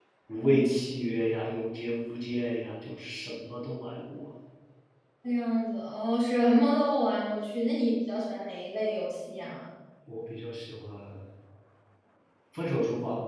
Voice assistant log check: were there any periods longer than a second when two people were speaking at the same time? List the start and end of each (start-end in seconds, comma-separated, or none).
none